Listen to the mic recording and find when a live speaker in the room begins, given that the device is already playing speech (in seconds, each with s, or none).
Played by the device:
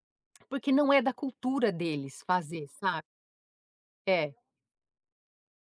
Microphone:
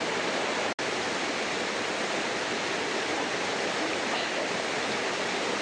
none